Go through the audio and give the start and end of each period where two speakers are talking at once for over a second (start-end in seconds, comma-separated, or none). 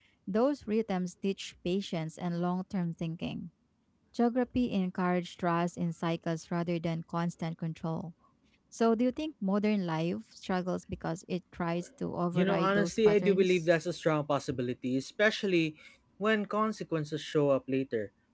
12.3-13.6